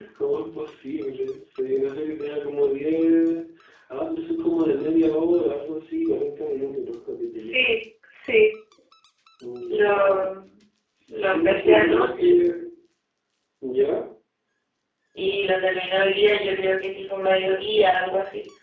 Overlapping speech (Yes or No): Yes